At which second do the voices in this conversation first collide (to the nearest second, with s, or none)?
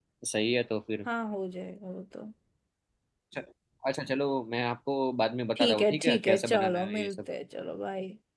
6 s